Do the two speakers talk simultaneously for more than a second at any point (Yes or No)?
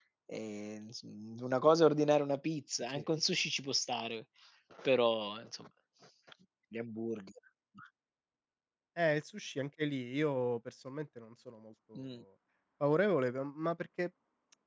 No